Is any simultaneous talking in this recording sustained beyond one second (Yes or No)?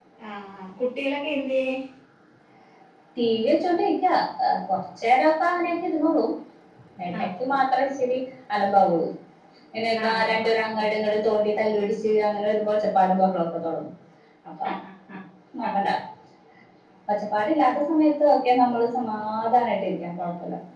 No